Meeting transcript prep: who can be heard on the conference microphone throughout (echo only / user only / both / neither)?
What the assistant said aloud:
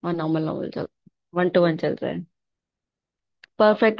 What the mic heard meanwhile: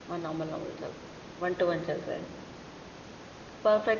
echo only